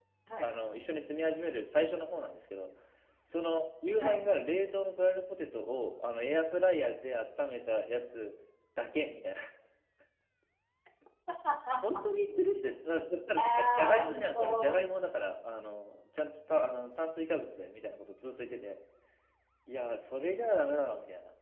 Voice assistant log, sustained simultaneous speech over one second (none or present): present